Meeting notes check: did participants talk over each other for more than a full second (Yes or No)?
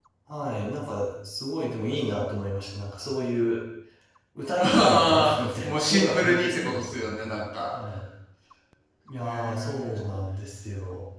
Yes